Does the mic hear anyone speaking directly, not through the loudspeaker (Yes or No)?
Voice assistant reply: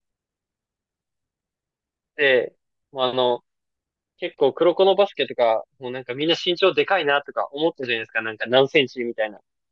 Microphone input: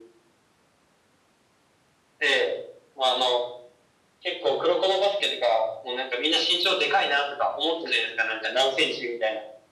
No